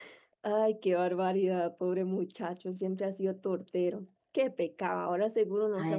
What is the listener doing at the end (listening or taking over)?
listening